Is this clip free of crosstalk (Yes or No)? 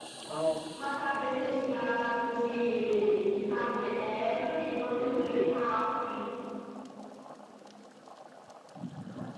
No